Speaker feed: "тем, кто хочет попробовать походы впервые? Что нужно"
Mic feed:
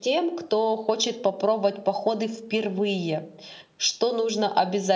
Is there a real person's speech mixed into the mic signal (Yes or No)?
No